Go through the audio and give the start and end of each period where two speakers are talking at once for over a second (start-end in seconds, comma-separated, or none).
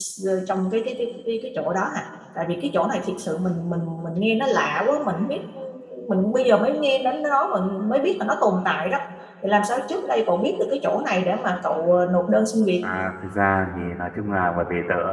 none